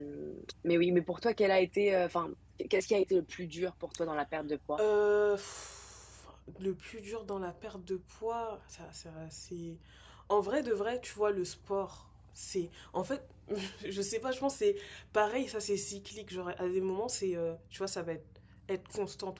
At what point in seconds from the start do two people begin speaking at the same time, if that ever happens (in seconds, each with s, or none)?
none